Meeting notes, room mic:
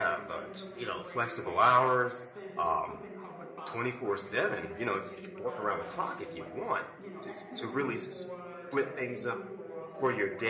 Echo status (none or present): present